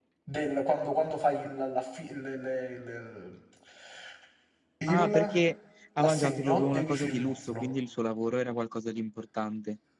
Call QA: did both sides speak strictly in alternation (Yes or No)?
No